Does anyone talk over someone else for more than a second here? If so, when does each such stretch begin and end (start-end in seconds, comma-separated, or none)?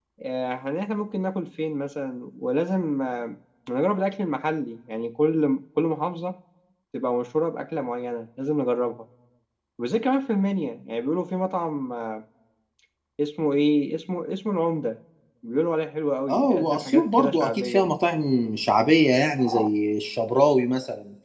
16.3-17.9